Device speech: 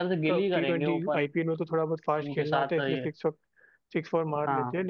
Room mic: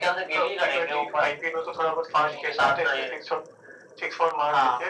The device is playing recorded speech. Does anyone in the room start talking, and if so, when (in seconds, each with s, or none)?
none